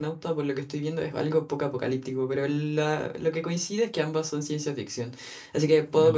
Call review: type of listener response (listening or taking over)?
listening